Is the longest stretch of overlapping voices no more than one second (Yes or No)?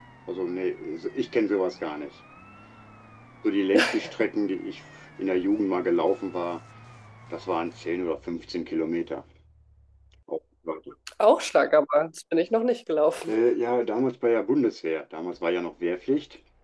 Yes